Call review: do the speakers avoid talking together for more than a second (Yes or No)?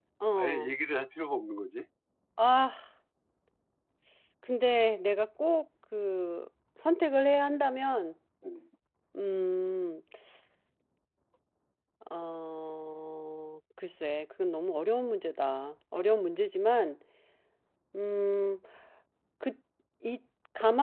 Yes